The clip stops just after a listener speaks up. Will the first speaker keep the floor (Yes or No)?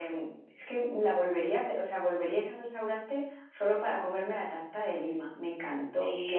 No